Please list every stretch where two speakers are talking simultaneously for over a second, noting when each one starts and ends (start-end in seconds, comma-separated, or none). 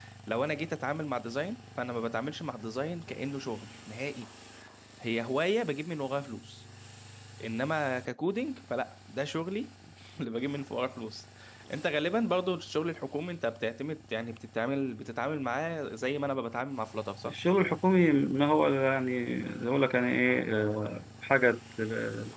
none